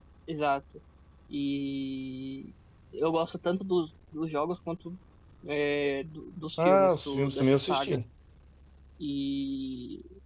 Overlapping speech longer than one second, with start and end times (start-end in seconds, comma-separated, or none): 6.6-8.0